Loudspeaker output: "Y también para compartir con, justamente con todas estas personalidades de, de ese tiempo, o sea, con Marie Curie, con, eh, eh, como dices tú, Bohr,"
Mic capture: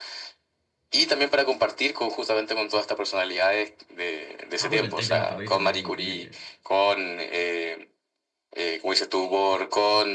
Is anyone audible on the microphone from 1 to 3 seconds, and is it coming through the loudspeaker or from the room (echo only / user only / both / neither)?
echo only